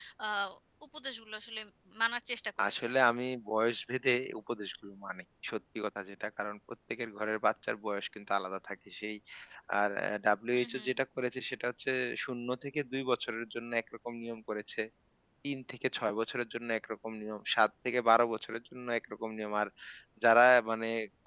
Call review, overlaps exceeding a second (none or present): none